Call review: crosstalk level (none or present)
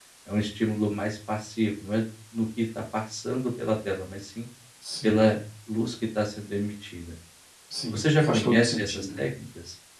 present